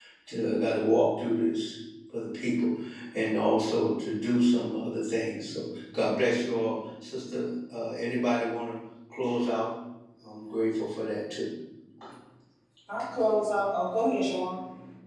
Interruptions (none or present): none